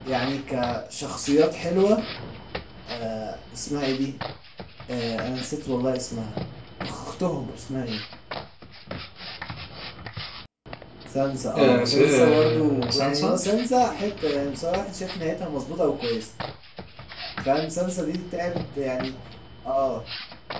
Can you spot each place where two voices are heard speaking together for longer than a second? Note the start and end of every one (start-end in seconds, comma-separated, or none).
11.6-13.4